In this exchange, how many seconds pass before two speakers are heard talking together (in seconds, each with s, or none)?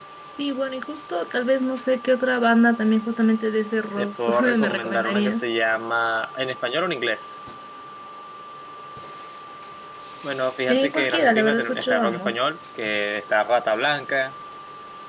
4.0 s